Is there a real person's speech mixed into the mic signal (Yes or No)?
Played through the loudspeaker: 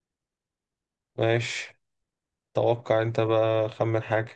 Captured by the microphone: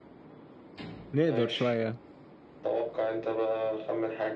Yes